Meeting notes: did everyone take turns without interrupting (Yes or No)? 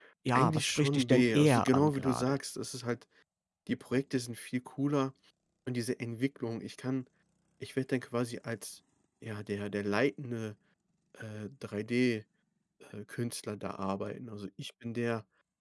No